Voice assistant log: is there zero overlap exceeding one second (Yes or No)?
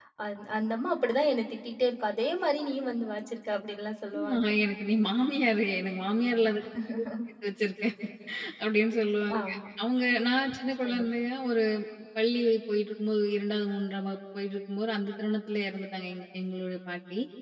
Yes